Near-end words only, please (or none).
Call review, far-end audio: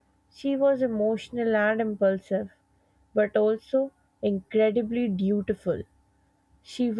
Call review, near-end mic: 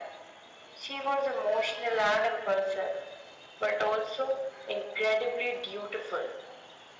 none